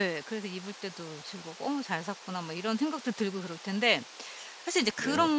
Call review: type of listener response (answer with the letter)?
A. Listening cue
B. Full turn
A